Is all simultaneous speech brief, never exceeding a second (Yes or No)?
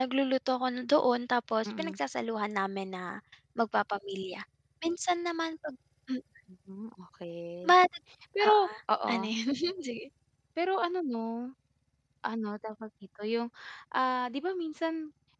Yes